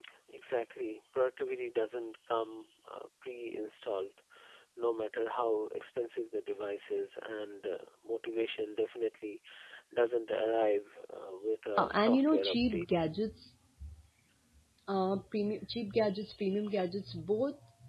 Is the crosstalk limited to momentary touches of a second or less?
No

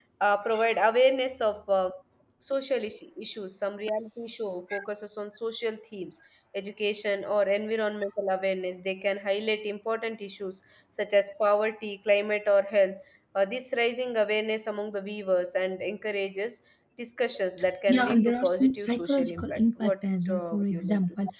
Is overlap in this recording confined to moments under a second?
No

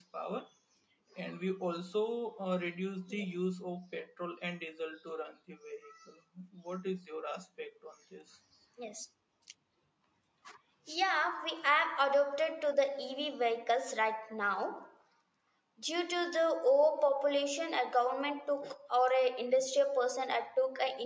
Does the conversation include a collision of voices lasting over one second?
No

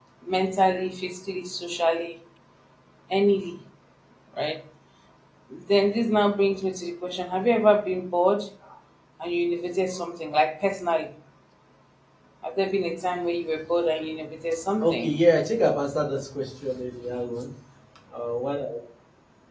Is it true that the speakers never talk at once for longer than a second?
Yes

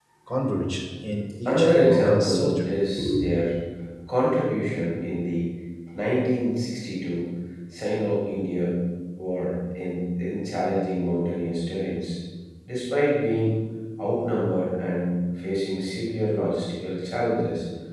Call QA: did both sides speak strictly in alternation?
No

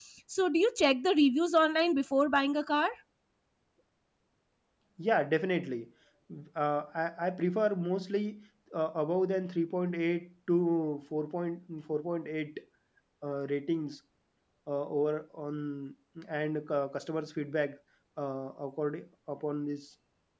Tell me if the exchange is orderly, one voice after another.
Yes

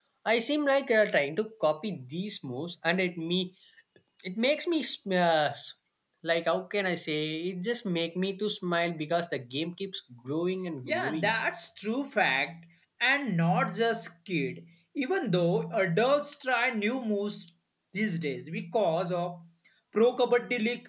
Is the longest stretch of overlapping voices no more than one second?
Yes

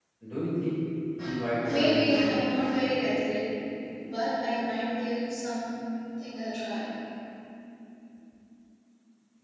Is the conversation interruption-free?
No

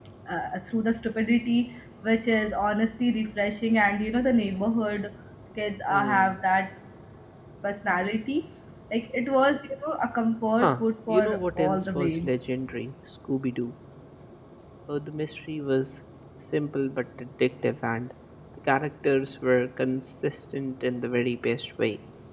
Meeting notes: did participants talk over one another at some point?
Yes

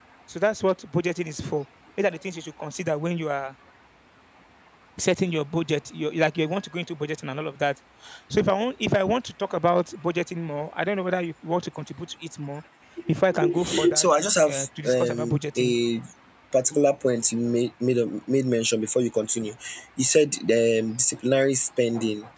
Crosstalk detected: Yes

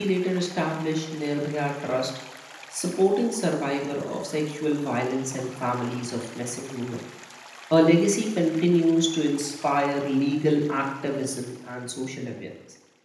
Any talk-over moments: No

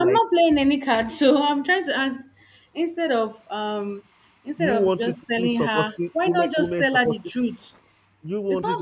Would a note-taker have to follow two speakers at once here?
Yes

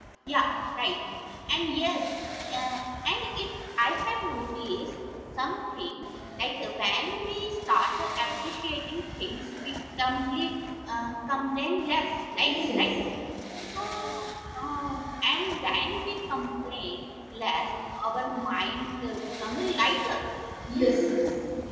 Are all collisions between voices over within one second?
Yes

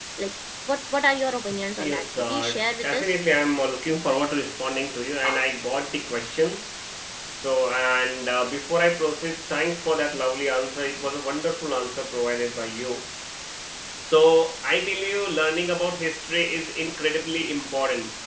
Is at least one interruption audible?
Yes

